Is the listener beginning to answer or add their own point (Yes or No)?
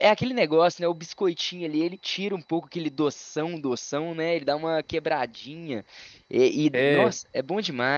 No